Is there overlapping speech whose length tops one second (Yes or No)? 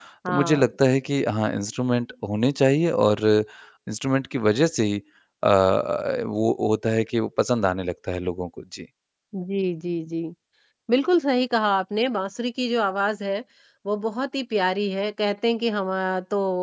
No